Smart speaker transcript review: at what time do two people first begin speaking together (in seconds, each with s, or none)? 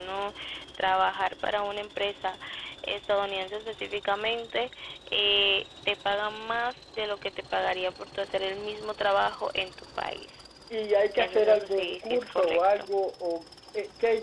11.2 s